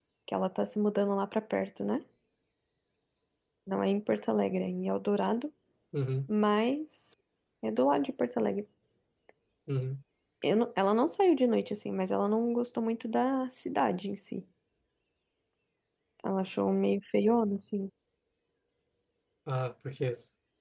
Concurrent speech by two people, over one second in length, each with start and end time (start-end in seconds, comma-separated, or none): none